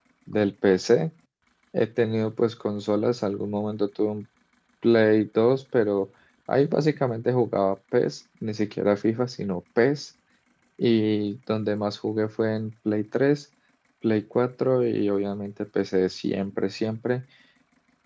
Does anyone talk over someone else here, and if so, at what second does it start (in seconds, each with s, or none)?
none